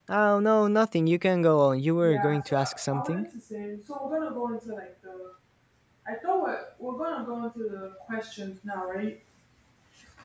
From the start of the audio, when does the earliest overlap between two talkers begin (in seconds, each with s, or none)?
2.0 s